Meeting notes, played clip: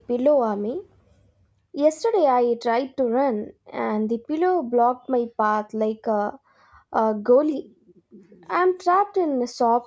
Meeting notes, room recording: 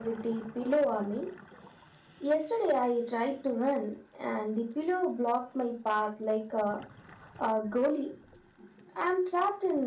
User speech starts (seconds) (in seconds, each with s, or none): none